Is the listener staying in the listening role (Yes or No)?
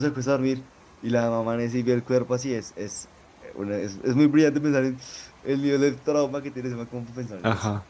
No